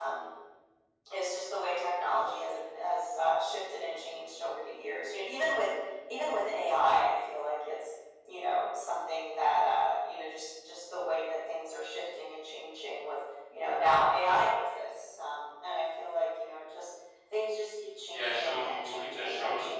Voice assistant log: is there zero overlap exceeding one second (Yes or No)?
No